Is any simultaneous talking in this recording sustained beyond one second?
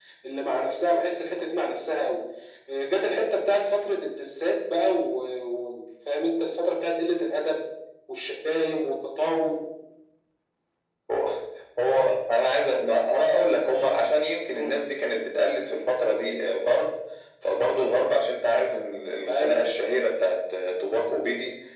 No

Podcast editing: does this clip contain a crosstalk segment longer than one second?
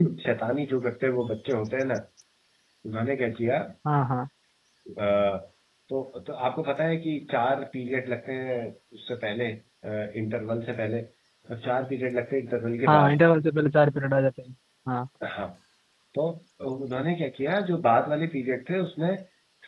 No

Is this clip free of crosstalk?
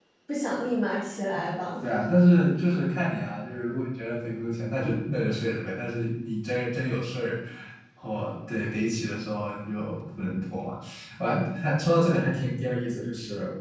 Yes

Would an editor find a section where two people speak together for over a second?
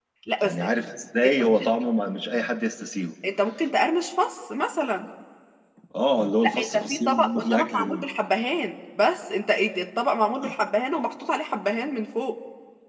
Yes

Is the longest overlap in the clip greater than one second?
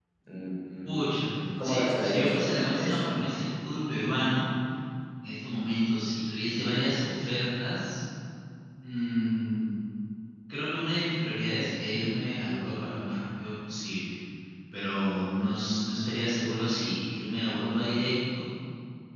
Yes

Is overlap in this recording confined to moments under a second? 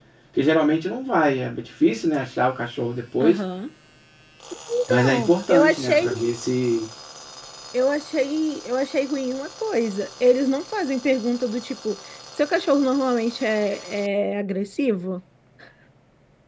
No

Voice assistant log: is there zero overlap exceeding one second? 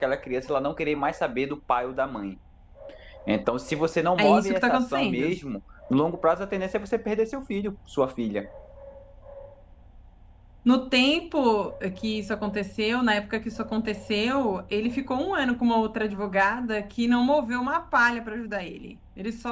No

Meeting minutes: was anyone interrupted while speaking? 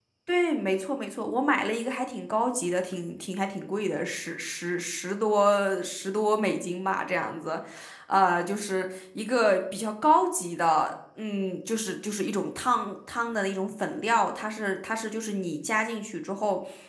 No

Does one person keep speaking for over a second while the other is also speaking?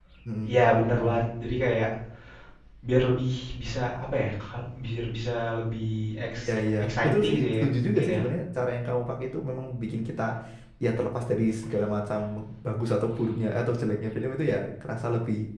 Yes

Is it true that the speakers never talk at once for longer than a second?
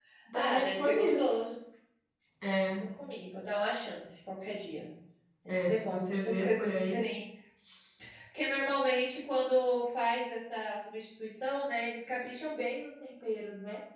No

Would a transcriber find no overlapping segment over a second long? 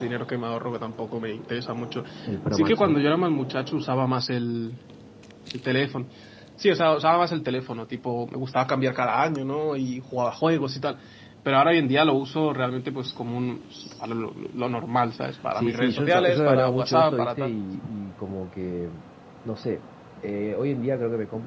No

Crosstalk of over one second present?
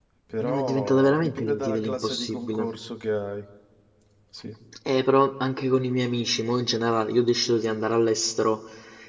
Yes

